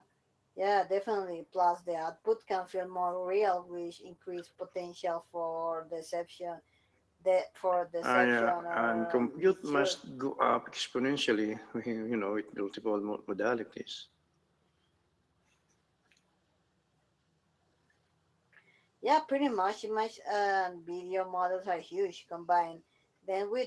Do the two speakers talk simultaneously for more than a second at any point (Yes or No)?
Yes